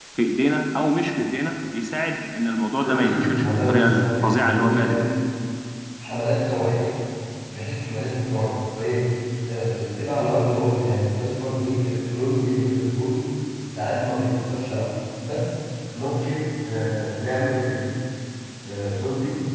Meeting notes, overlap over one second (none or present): present